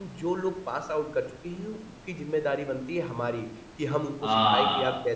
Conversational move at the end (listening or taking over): listening